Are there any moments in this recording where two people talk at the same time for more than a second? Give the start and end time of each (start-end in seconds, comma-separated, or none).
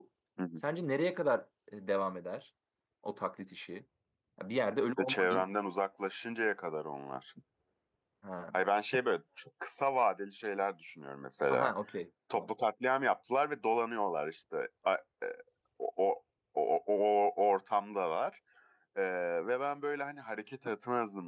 none